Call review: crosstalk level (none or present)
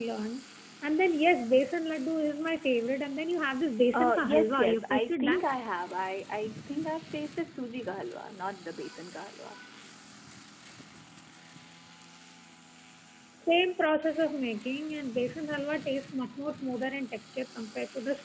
present